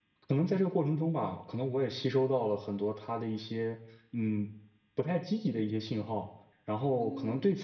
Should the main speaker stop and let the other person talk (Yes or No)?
No